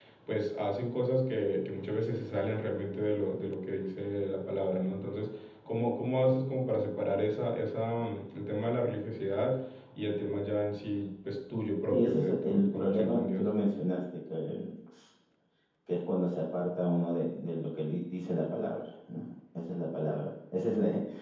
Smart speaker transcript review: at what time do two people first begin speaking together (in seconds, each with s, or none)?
11.9 s